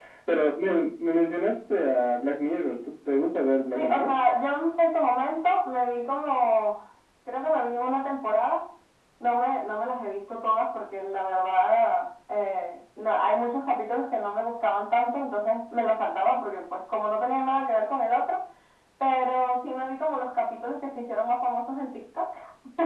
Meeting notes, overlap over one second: none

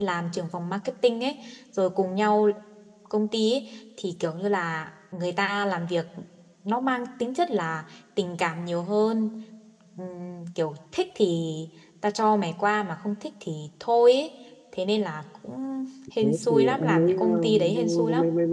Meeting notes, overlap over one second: present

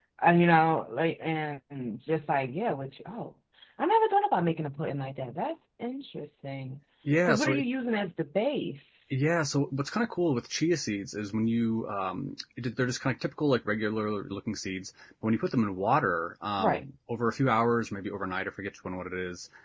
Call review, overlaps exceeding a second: none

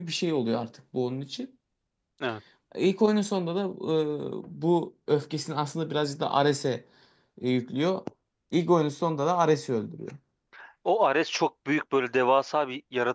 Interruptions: none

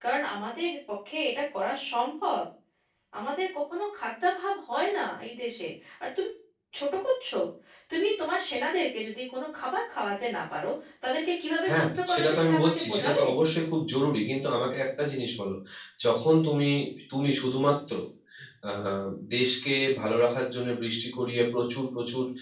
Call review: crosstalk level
present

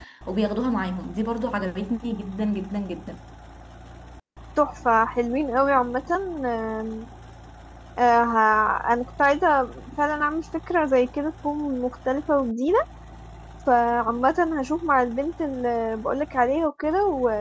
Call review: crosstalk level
none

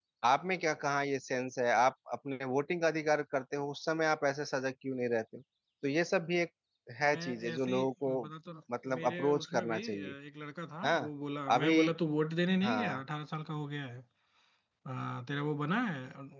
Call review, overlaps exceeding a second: present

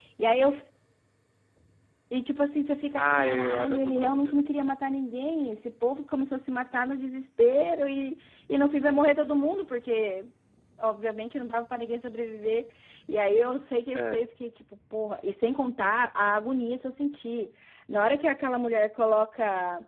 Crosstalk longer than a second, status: present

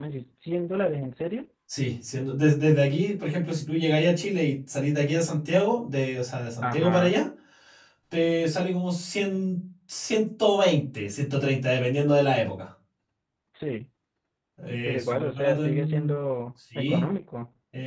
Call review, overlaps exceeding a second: present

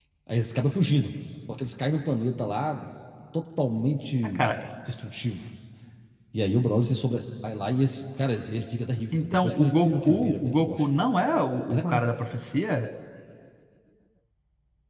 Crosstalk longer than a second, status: present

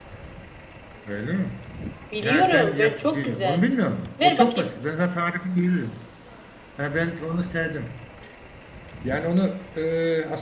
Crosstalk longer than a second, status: present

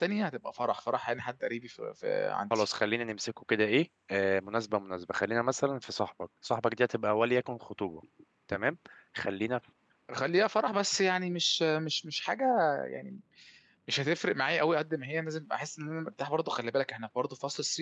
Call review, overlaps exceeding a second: none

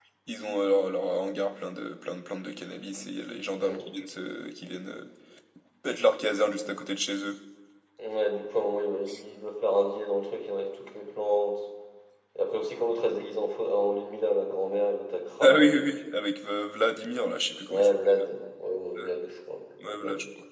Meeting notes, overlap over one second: none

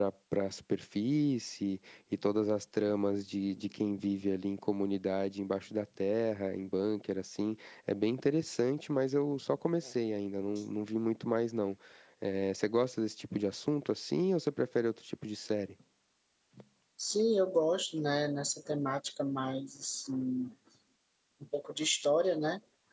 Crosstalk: none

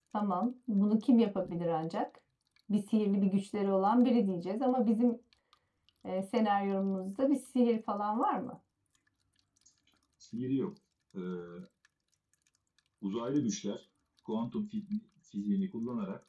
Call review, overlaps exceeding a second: none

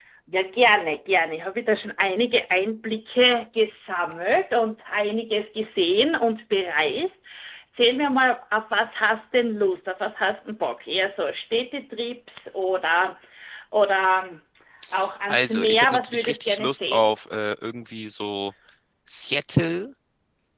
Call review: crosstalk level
present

